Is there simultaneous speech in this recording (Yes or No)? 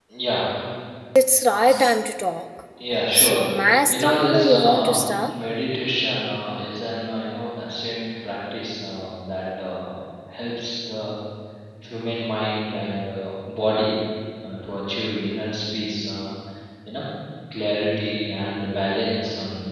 Yes